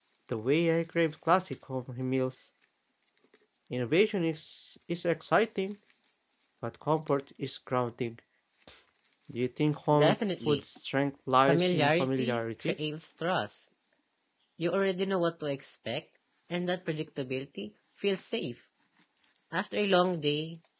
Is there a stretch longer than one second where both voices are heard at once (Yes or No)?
Yes